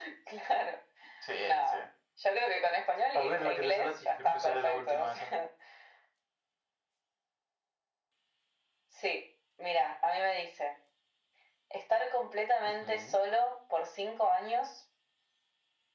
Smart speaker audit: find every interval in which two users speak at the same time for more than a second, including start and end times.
3.1-5.3

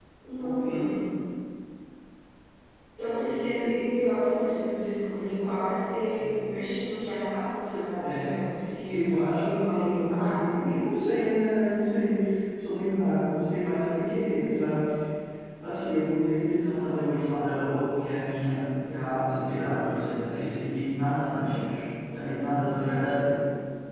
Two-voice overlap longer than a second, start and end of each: 8.9-10.6

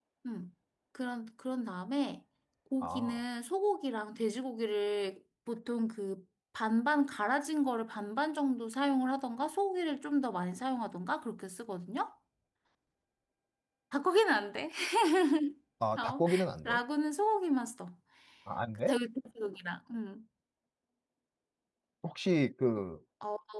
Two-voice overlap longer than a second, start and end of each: none

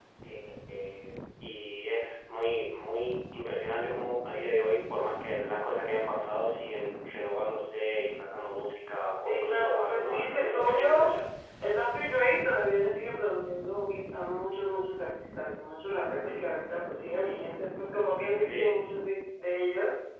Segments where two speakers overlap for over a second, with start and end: 9.2-11.2

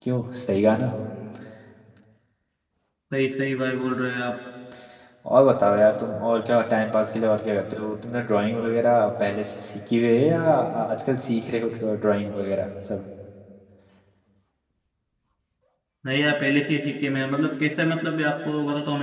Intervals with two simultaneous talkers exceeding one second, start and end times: none

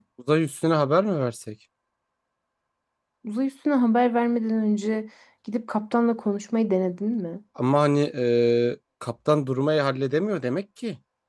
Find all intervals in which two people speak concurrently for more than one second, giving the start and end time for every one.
none

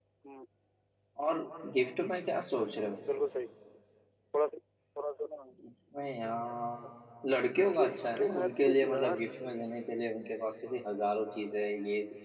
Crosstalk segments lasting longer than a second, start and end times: 7.8-9.2

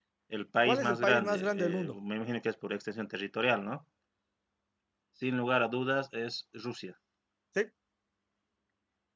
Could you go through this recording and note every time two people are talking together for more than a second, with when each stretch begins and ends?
0.6-1.9

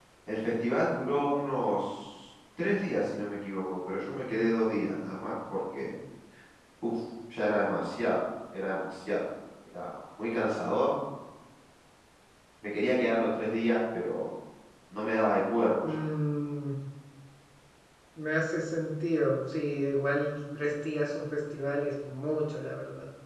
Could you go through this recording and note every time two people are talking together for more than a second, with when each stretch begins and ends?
none

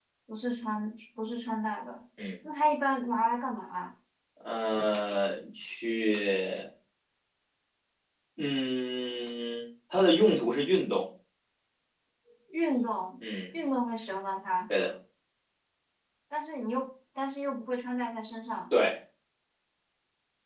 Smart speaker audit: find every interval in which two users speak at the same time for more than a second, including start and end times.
none

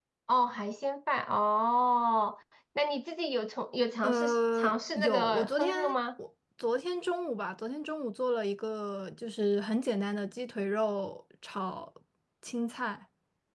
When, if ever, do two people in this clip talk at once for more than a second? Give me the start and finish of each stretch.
4.0-5.8

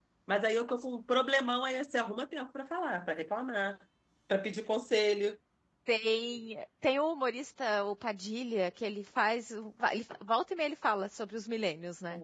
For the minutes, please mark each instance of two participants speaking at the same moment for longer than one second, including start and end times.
none

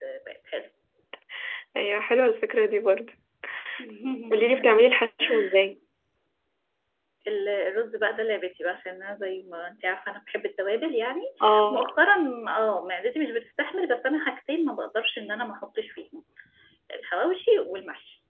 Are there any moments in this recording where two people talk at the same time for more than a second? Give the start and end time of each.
none

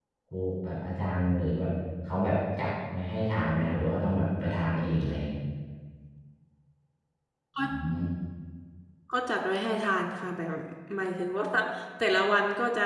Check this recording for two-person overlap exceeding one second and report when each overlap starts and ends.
none

